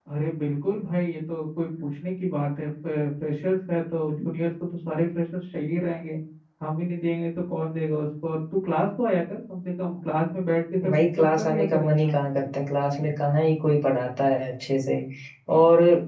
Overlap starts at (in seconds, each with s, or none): 10.8 s